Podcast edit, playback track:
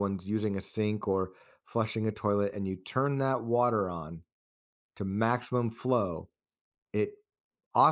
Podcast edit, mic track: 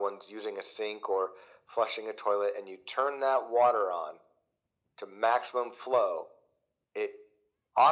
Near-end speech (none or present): none